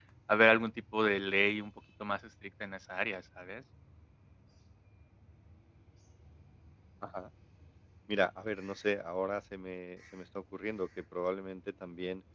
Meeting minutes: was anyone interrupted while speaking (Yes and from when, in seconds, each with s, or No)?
No